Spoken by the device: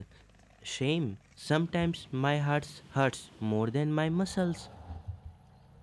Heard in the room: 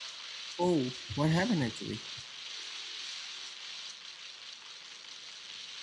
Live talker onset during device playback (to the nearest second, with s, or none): 1 s